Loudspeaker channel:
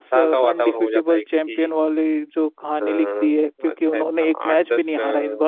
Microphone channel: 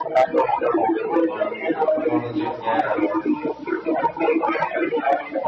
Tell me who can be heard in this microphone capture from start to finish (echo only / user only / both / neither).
both